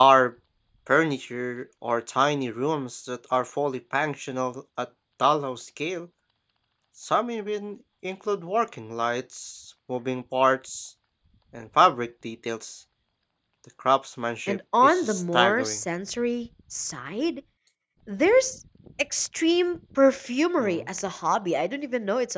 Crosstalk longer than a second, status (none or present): present